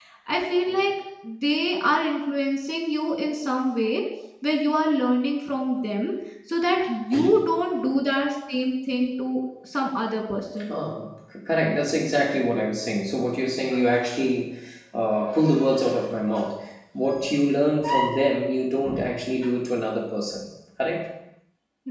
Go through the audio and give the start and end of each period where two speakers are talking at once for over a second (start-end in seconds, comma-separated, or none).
none